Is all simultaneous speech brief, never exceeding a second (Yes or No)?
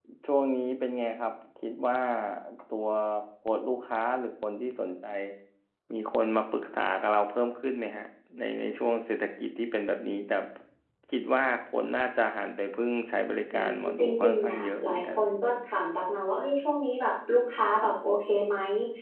No